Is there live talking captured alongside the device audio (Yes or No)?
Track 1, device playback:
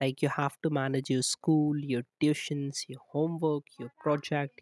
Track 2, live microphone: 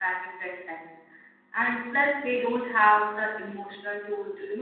Yes